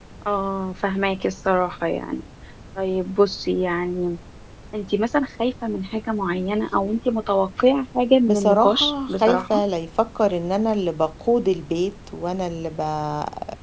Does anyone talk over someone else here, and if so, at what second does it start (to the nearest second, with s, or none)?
8 s